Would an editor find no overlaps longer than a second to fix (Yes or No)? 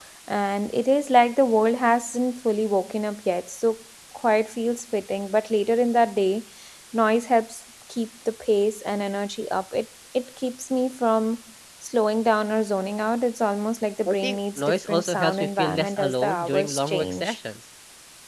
No